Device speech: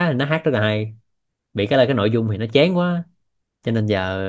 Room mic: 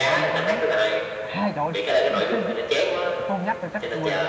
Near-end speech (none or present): present